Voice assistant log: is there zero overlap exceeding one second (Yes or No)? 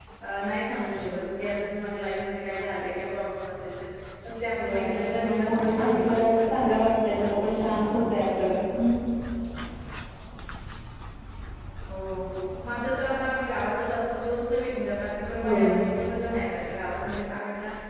No